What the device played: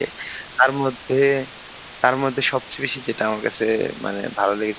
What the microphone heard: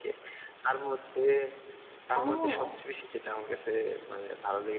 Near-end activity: present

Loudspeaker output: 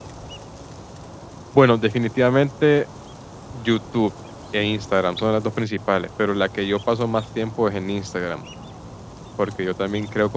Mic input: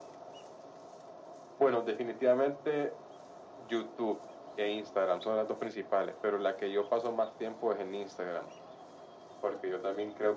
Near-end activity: none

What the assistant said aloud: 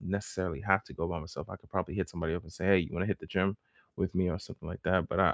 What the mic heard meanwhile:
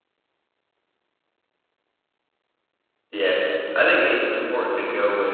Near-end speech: present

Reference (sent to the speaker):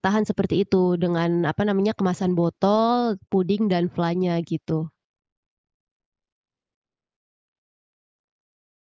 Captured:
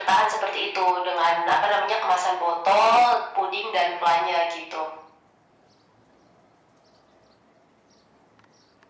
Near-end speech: none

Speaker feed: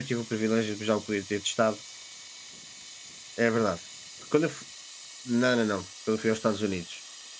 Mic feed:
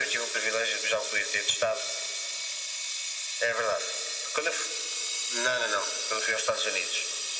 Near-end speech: none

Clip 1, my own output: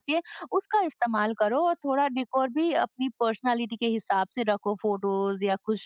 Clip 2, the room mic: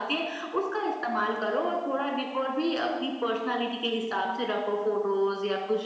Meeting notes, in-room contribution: none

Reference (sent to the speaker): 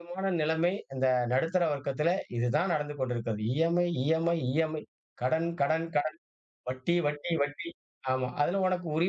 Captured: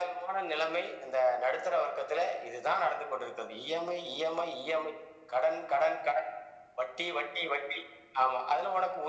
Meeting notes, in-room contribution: none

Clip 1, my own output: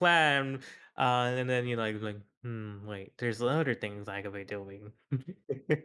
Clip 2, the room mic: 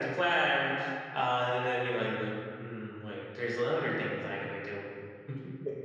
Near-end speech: none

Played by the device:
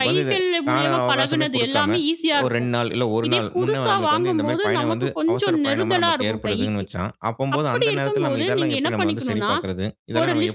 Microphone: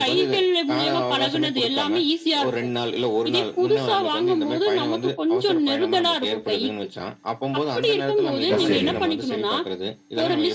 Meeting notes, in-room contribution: present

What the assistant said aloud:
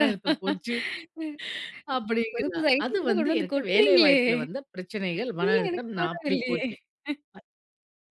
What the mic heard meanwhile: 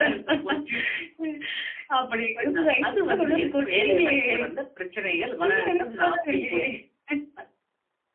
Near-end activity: none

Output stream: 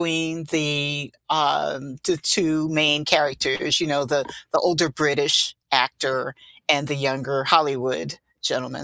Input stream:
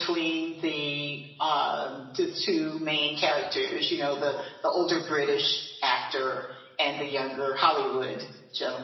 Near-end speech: none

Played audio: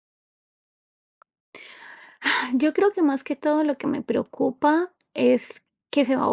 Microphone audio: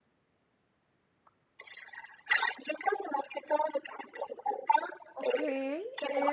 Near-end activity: present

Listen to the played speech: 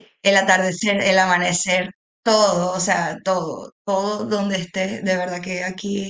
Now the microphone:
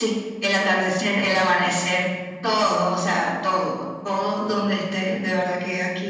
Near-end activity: none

